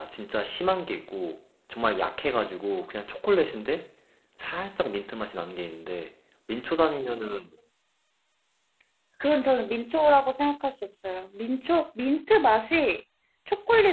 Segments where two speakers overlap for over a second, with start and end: none

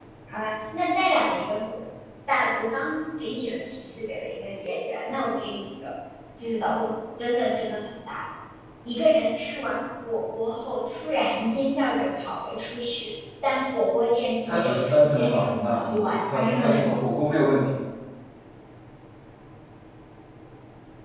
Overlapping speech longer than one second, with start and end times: 14.4-16.9

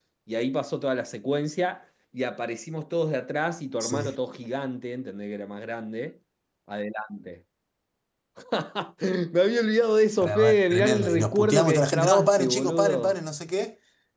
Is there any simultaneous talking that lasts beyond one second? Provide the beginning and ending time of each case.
10.2-13.2

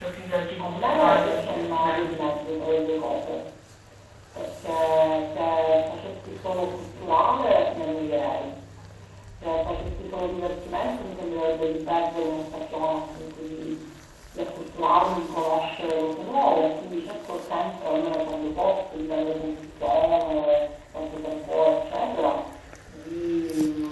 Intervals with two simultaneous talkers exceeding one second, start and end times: 0.6-2.2

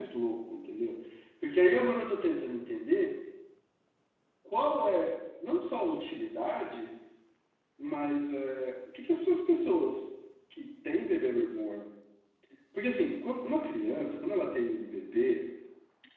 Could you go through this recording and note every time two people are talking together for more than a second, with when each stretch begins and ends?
none

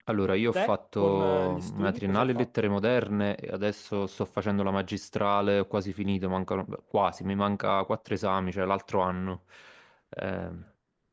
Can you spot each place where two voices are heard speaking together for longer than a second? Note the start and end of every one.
0.5-2.5

